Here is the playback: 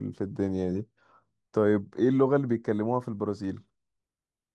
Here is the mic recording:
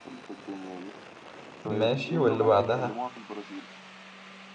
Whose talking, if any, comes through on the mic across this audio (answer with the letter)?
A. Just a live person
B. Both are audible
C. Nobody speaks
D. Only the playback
B